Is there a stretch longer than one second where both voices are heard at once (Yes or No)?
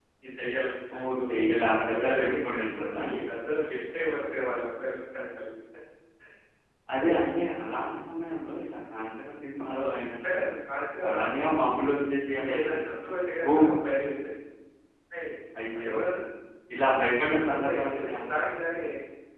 Yes